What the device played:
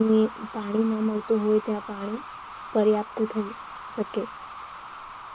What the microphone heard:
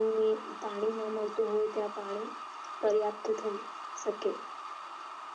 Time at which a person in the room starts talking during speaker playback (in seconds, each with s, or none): none